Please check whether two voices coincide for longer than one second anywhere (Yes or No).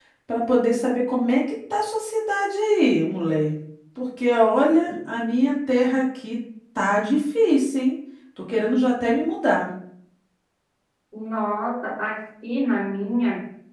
No